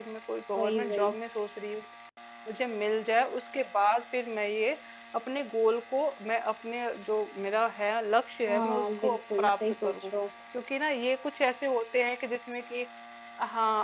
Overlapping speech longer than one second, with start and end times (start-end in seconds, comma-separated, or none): 8.5-9.9